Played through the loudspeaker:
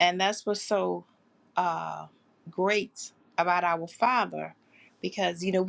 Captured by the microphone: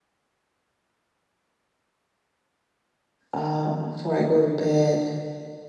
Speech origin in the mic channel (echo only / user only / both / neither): user only